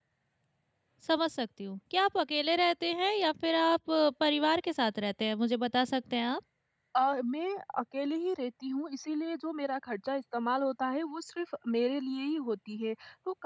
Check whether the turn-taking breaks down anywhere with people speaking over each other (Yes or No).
No